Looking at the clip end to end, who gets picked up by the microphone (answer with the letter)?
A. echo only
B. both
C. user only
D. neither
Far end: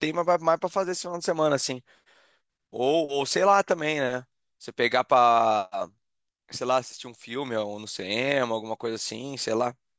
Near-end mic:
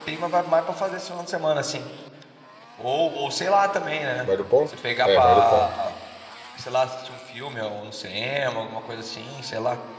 B